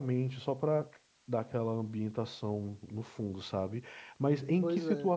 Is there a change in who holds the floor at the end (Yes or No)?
No